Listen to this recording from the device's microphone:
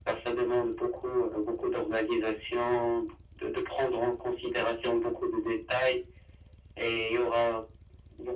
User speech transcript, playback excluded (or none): none